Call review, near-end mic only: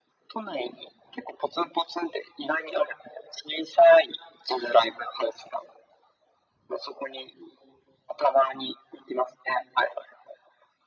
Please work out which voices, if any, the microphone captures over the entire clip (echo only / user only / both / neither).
echo only